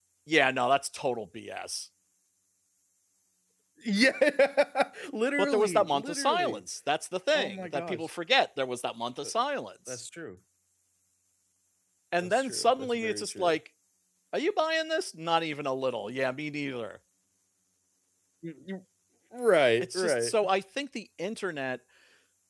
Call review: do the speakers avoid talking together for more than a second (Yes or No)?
No